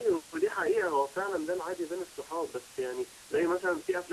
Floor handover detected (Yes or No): No